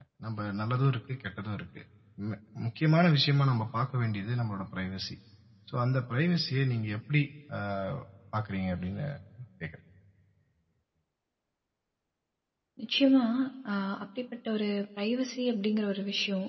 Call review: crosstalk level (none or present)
none